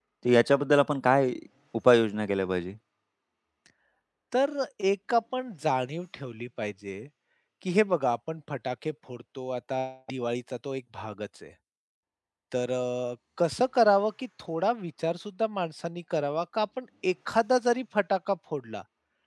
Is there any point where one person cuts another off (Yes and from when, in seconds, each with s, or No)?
No